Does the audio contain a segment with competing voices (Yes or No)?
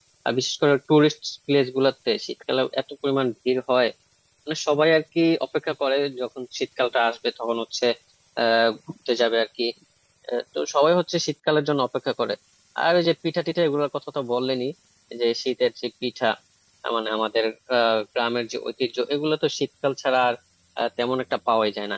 No